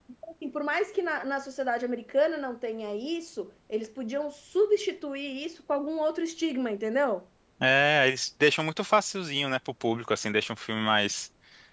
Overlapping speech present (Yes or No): No